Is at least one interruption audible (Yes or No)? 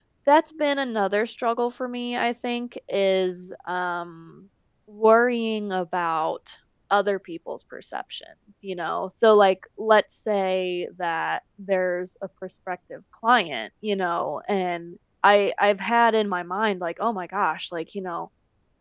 No